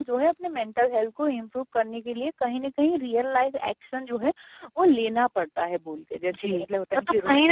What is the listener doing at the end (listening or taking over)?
taking over